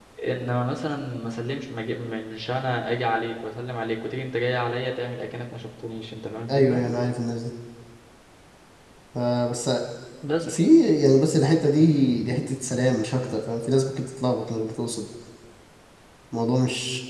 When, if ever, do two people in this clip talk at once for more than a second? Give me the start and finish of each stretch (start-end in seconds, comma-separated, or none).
none